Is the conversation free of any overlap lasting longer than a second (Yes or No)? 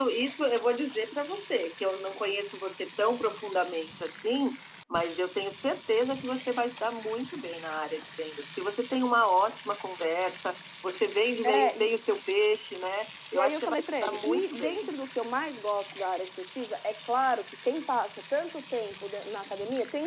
No